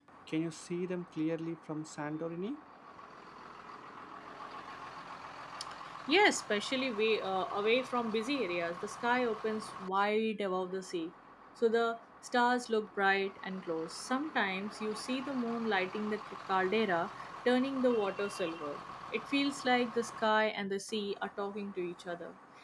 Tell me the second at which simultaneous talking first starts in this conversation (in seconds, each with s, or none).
none